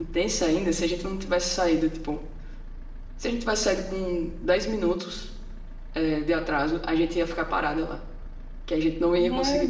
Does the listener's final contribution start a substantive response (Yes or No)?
Yes